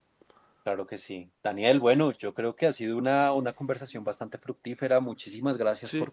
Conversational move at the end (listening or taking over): listening